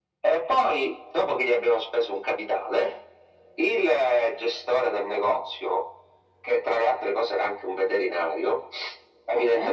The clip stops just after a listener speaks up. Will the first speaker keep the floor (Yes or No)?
Yes